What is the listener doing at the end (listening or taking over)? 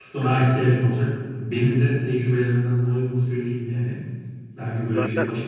listening